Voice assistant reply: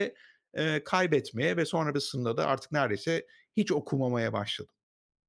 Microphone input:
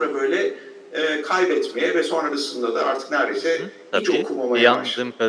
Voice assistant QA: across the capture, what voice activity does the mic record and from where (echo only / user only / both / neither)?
both